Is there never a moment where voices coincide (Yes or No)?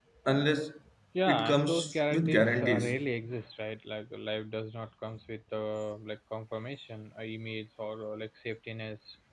No